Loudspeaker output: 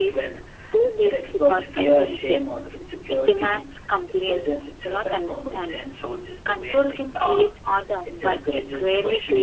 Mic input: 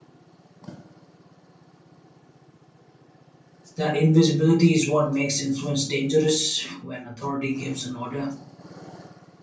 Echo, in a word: none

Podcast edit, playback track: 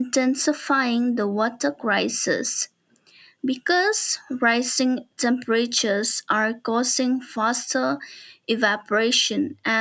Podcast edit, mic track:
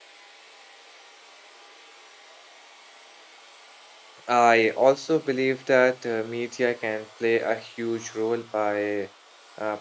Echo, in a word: none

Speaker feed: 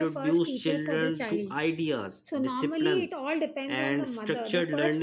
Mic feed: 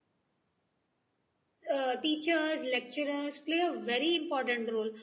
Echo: none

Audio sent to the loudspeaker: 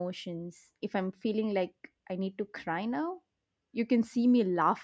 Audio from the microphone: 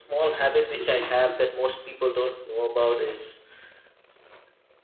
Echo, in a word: none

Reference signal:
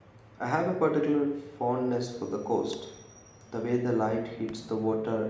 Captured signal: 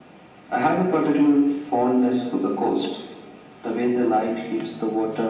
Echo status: present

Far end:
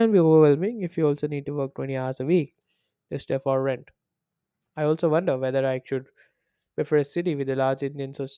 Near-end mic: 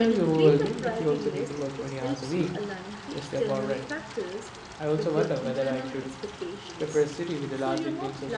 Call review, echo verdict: present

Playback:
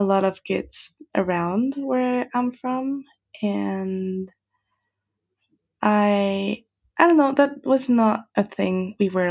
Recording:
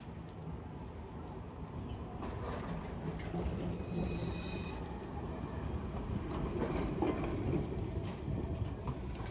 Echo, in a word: none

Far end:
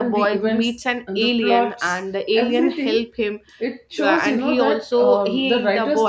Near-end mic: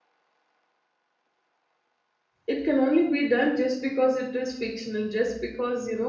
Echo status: none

